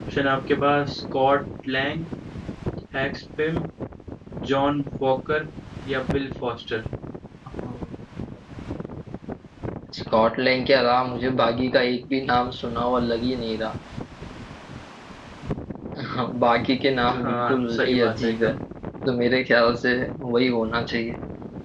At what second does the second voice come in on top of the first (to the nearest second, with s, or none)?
17 s